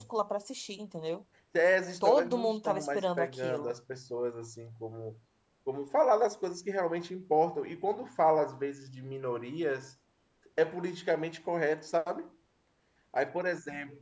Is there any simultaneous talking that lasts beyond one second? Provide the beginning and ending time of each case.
2.0-3.7

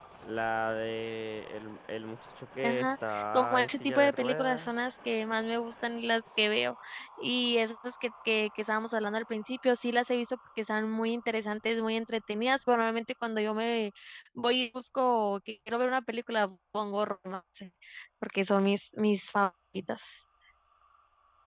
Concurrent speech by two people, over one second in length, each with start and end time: 2.6-4.7

